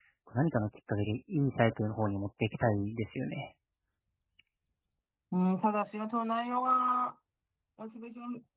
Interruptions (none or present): none